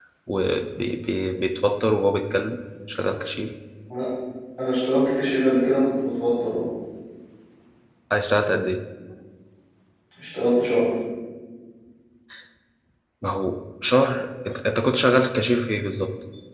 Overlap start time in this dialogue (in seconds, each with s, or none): none